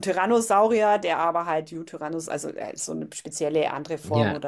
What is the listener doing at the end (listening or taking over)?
listening